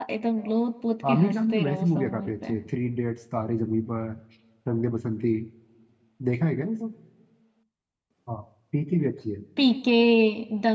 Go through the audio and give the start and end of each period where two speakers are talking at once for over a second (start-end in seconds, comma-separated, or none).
1.1-2.5